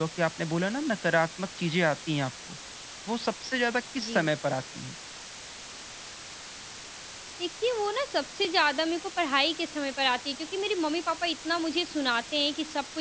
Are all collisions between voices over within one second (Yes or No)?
Yes